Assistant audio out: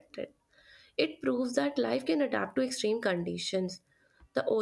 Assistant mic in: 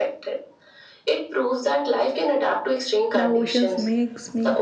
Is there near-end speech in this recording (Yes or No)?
Yes